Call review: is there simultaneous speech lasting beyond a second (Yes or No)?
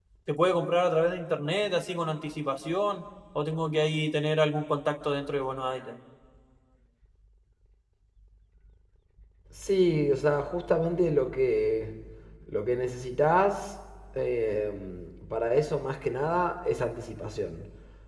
No